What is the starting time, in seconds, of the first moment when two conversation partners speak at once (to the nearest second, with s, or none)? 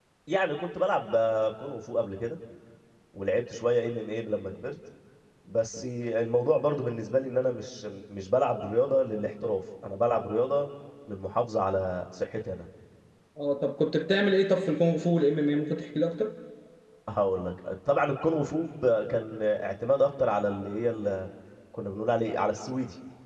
none